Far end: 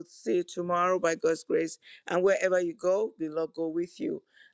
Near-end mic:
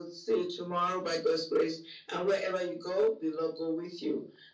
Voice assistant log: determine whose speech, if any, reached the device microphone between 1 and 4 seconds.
echo only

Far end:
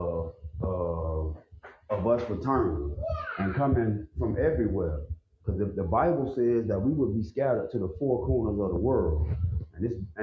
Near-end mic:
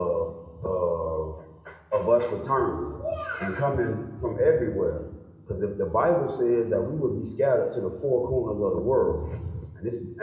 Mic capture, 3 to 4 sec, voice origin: echo only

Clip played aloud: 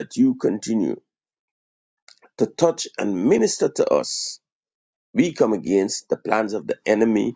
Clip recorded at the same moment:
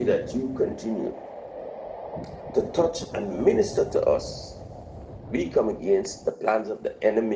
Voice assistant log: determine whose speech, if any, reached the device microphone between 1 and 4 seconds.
echo only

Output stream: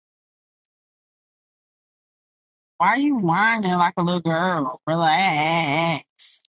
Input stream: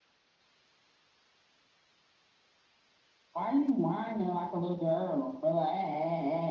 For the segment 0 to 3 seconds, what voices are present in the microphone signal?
neither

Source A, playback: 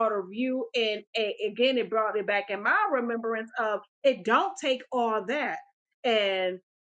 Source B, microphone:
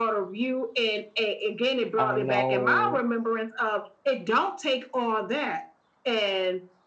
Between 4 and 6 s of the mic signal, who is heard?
echo only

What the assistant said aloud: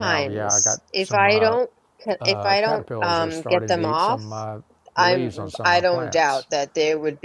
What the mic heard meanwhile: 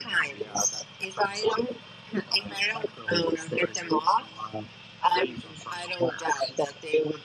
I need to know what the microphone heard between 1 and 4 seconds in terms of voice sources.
echo only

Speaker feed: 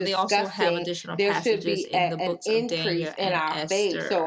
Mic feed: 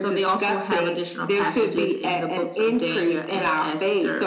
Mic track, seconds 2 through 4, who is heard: echo only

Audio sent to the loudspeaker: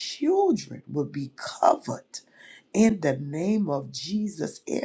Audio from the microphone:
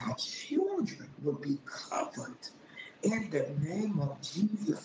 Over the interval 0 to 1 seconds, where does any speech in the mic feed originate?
echo only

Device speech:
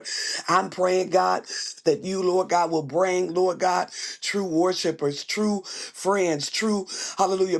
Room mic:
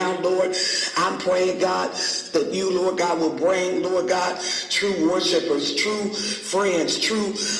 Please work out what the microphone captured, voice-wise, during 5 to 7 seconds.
echo only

